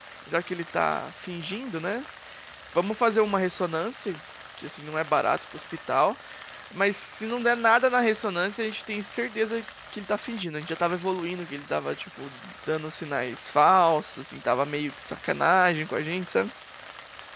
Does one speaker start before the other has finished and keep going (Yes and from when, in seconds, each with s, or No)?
No